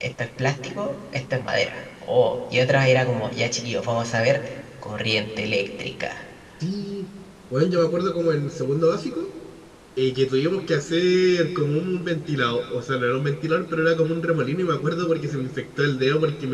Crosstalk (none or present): none